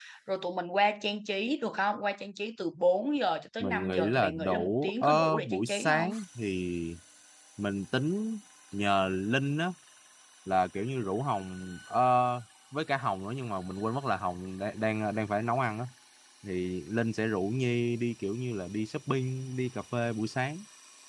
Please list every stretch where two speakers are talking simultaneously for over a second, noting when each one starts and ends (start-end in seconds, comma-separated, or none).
3.6-6.1